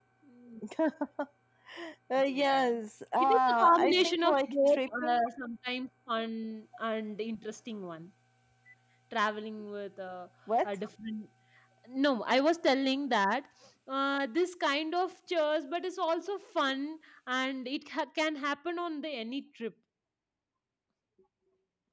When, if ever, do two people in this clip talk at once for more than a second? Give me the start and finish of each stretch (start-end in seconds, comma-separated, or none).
3.2-5.2